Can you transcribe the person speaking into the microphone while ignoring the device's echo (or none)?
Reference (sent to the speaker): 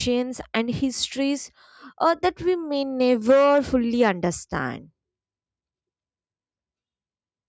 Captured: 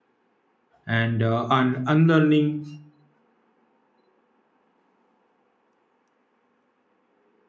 and uh, un- unlearning